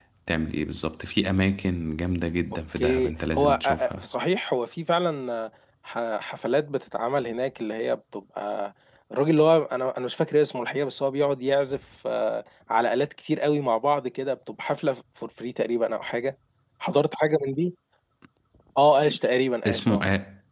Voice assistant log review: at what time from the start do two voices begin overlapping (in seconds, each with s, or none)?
2.8 s